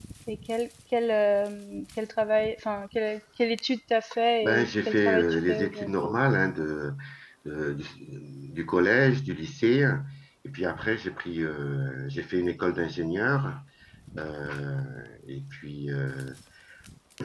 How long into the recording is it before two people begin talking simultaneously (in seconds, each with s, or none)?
4.4 s